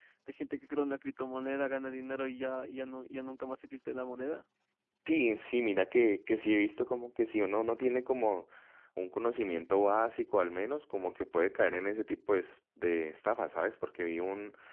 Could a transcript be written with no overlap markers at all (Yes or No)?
Yes